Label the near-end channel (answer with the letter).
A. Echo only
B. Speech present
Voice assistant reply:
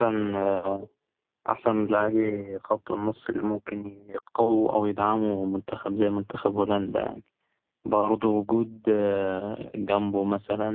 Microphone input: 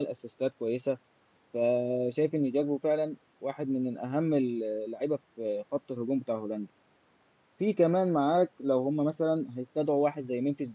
B